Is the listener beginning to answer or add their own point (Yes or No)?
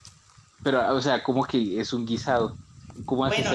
Yes